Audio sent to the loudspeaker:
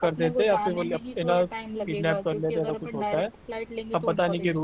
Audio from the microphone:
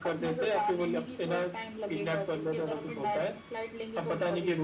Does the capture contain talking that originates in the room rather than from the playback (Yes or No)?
No